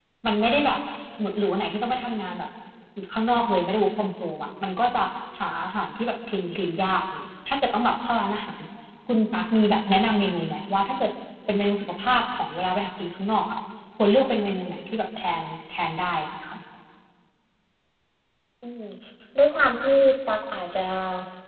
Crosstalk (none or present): none